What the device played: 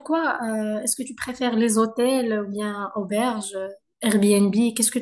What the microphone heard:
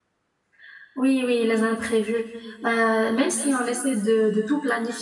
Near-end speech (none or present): present